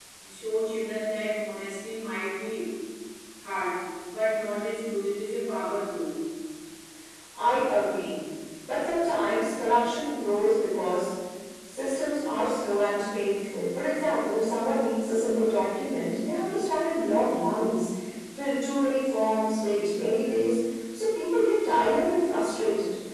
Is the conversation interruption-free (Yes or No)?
Yes